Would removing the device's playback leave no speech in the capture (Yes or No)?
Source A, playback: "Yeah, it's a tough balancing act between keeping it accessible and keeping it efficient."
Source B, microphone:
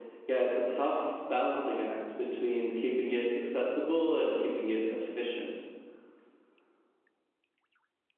Yes